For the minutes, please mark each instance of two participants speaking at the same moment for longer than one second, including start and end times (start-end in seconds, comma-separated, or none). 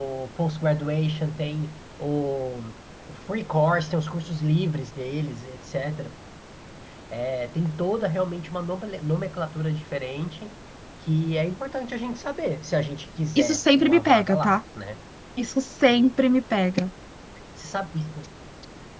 13.3-14.6